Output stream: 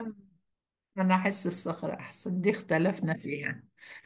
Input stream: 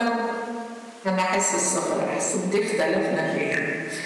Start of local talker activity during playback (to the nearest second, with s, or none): none